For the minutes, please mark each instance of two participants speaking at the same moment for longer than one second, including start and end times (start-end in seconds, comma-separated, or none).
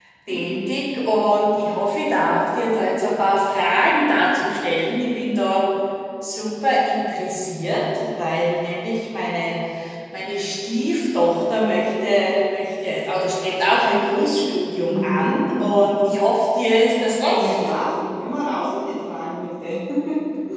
none